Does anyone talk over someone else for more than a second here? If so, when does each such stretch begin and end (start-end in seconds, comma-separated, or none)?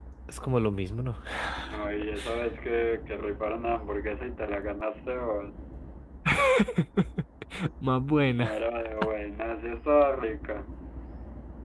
none